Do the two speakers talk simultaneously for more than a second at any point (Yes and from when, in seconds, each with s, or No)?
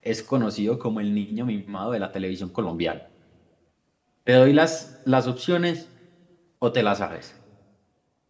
No